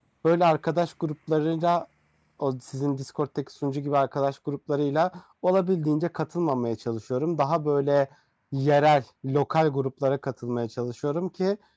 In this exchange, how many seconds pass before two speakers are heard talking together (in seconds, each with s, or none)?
none